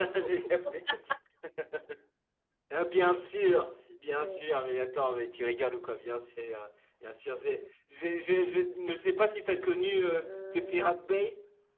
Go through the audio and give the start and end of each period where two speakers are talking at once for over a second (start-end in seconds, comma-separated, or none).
9.5-10.9